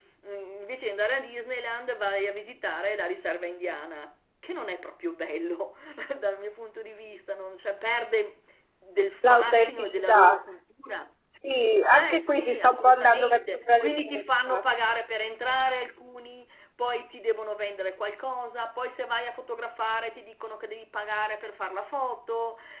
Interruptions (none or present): present